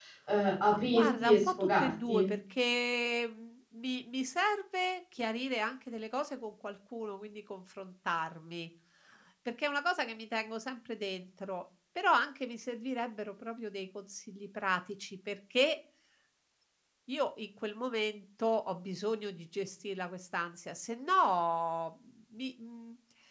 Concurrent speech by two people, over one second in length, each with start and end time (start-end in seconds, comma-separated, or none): 0.7-2.3